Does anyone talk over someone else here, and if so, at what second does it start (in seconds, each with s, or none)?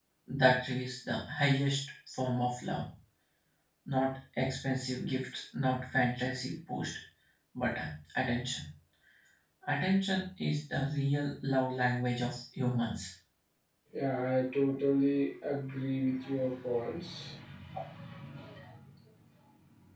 none